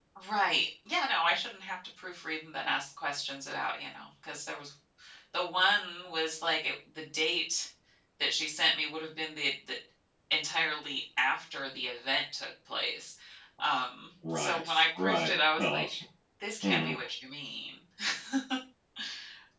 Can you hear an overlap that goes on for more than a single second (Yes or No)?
Yes